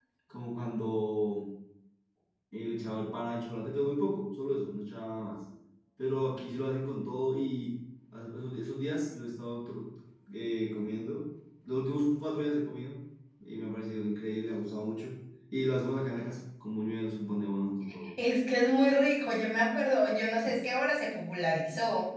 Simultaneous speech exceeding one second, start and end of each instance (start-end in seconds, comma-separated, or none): none